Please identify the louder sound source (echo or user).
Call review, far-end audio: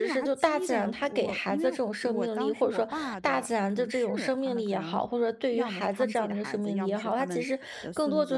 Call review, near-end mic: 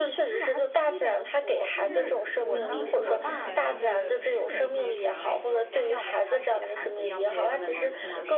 echo